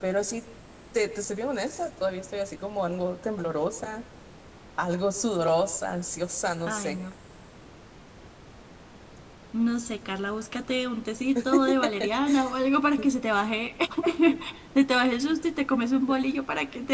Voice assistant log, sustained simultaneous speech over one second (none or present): none